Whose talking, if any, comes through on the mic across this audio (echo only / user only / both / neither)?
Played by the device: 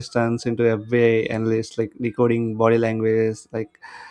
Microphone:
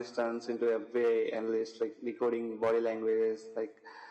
echo only